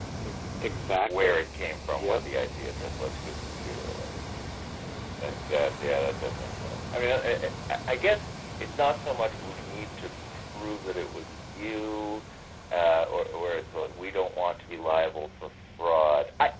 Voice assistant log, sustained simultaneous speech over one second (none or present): none